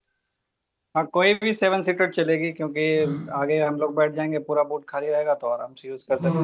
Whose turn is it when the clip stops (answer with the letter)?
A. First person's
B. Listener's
B